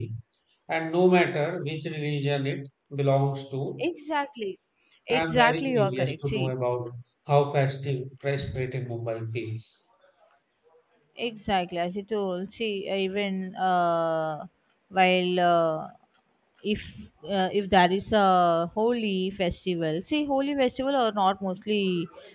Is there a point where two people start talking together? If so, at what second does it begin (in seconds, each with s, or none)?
5.1 s